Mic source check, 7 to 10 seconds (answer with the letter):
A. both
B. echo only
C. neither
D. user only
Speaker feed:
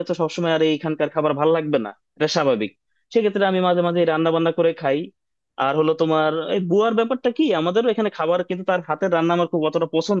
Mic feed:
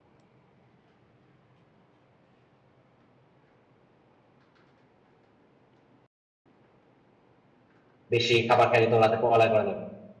D